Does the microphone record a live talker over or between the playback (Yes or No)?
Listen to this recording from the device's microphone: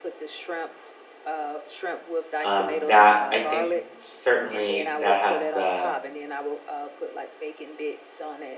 Yes